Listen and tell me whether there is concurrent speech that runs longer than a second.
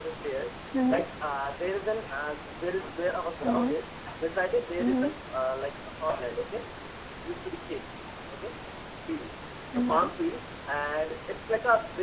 No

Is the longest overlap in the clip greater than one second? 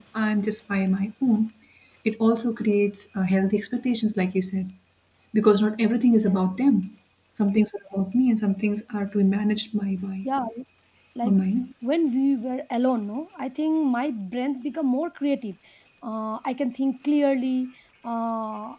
No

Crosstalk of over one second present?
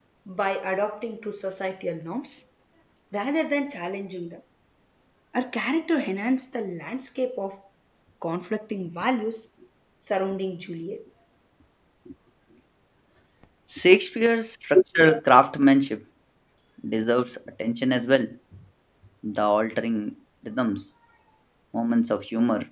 No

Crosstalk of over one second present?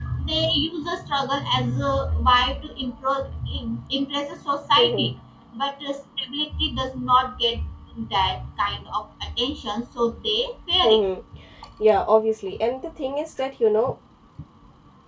No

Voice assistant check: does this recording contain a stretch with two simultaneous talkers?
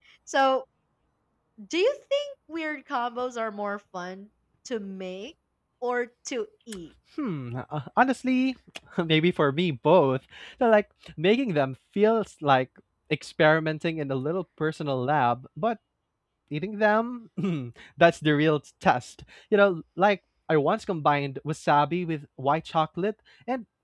No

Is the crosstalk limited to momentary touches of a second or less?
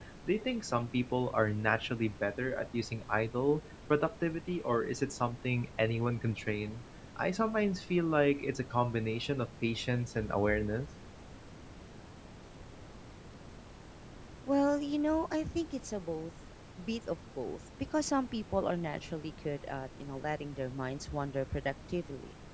Yes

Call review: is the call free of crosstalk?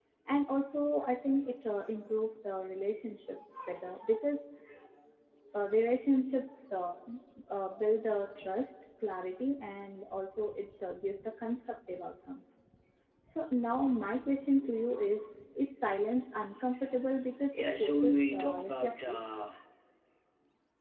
No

